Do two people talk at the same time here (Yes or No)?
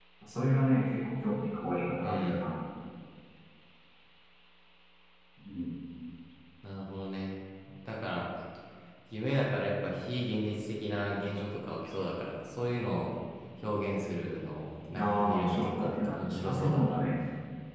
Yes